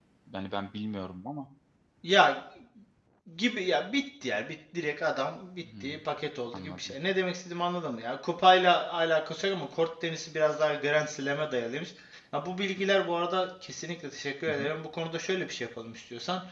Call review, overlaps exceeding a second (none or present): none